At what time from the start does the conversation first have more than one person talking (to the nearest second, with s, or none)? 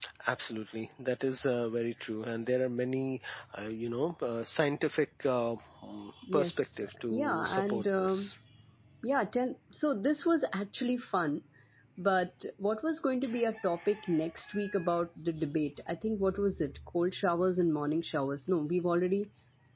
6 s